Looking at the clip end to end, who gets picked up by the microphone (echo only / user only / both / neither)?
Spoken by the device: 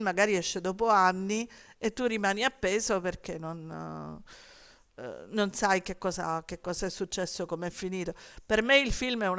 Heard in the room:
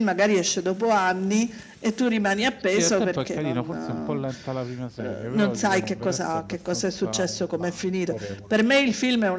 both